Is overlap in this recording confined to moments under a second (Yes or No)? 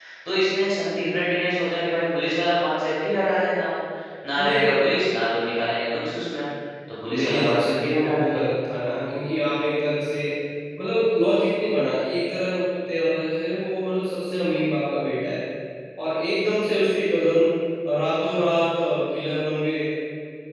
No